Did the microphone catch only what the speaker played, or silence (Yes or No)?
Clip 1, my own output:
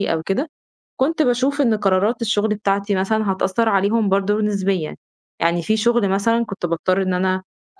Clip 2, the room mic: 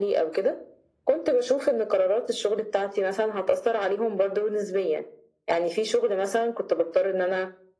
Yes